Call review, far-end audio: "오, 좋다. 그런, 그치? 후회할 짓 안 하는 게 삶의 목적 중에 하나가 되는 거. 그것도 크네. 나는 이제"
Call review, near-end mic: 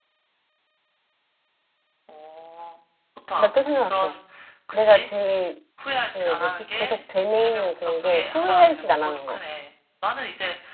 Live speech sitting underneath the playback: No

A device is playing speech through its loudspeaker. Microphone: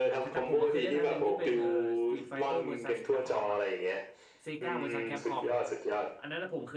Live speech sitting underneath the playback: Yes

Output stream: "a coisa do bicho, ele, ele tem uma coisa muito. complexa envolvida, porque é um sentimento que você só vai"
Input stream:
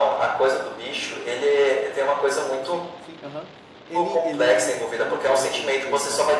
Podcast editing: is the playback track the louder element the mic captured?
Yes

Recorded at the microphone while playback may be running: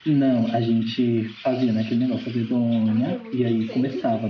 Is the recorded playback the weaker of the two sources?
No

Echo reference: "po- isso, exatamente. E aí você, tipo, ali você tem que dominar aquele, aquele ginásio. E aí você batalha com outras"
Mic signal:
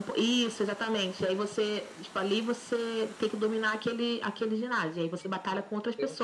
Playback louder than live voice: Yes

